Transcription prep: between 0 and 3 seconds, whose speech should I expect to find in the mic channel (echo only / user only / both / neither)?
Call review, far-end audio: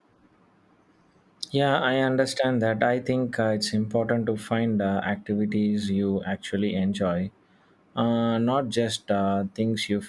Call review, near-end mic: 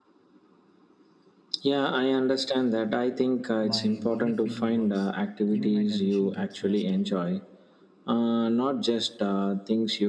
echo only